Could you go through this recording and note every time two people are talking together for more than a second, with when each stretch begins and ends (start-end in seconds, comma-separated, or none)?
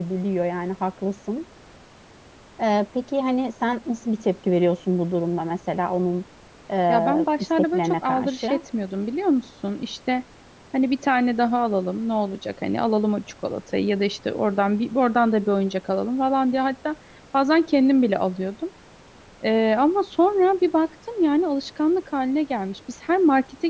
6.9-8.6